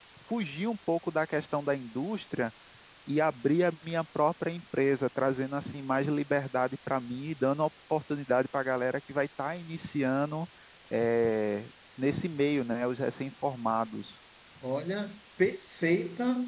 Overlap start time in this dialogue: none

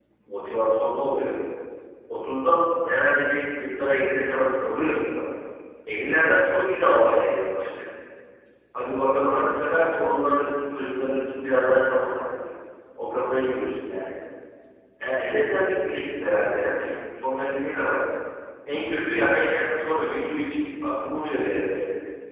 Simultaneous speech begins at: none

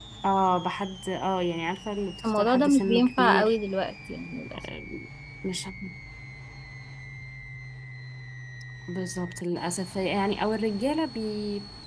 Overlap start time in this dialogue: 2.2 s

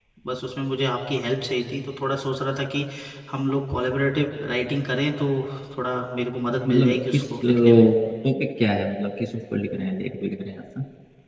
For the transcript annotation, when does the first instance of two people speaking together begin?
6.7 s

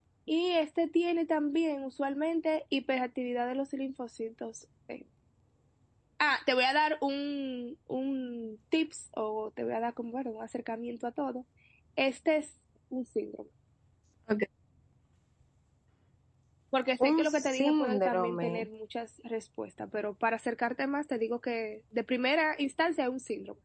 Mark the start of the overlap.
17.1 s

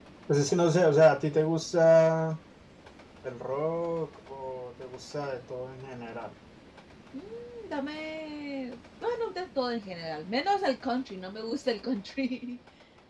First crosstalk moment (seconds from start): none

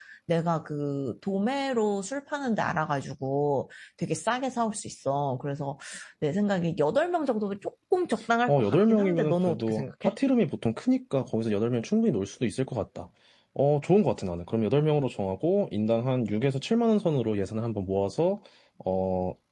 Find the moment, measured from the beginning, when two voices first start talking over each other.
8.5 s

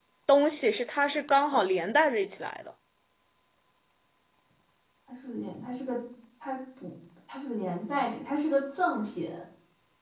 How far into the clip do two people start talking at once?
none

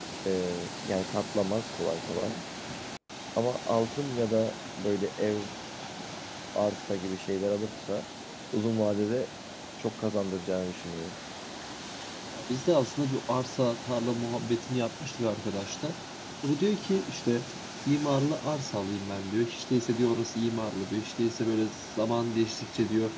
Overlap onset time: none

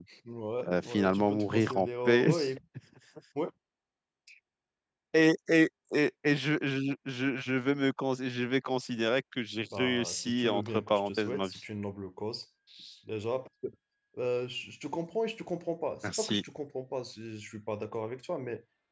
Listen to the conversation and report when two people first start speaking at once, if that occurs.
0.7 s

